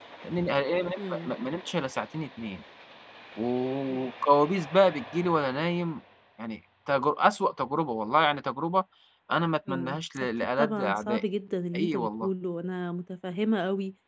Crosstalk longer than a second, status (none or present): present